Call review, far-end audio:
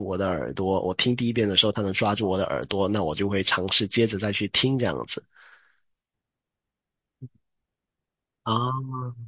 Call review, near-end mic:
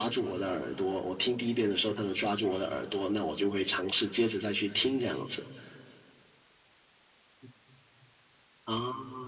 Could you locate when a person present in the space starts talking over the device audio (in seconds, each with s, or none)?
none